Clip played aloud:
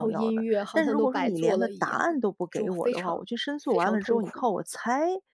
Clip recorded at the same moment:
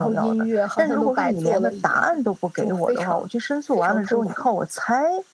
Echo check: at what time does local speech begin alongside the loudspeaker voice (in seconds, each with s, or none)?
none